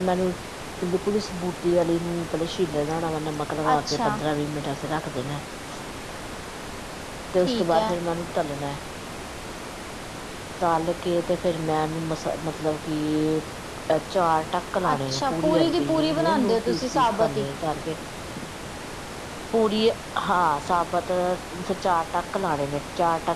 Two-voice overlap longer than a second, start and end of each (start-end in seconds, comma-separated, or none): 14.9-17.4